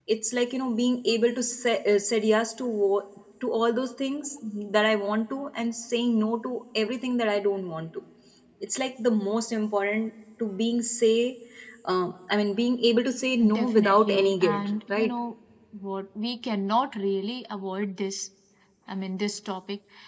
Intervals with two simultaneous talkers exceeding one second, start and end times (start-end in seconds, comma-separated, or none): 13.5-15.1